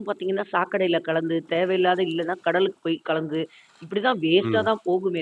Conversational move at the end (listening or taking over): listening